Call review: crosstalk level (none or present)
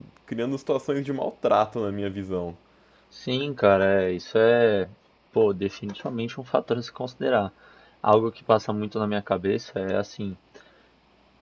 none